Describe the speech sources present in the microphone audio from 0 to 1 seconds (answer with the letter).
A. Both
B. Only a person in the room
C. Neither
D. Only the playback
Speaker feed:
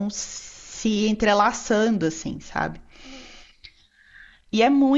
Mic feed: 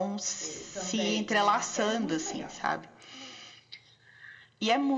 A